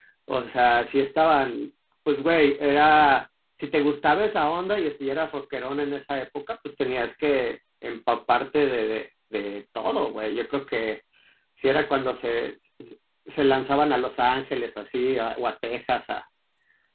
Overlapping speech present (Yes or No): No